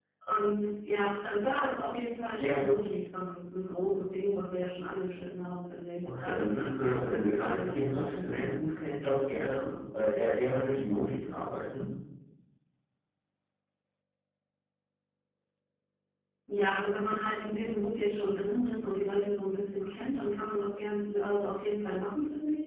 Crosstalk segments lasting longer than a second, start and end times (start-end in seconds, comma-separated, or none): 6.2-8.5